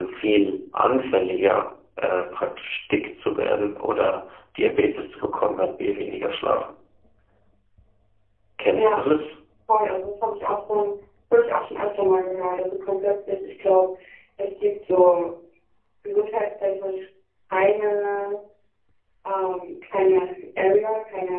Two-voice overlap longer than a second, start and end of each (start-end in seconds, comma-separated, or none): none